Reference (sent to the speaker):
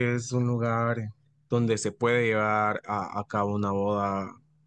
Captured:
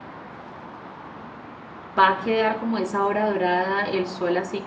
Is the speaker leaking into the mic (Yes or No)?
No